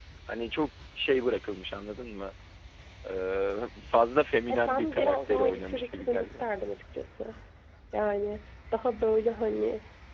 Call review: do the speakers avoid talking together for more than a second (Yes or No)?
No